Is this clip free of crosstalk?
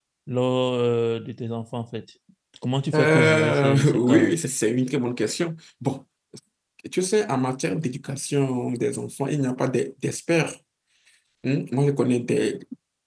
No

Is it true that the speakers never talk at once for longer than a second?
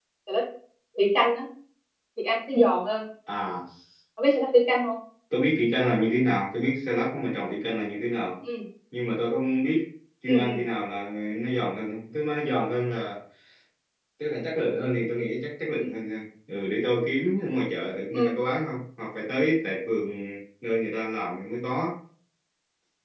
Yes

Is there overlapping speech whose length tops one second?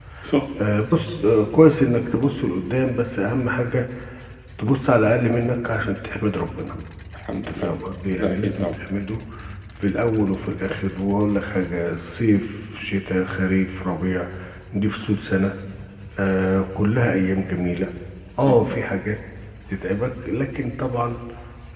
No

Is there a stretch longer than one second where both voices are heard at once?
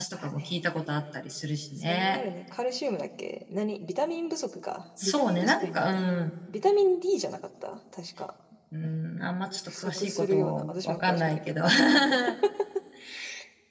Yes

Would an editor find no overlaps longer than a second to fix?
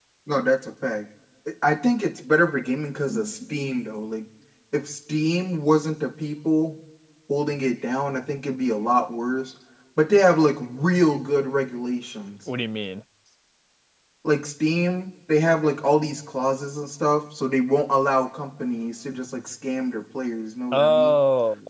Yes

